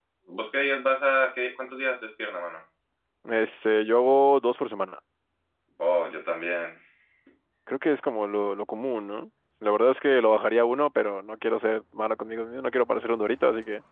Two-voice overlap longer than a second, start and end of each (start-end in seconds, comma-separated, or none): none